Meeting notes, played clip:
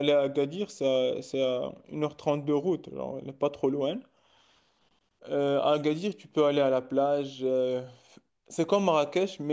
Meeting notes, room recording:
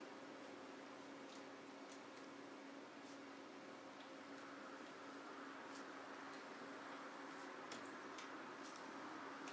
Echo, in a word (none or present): none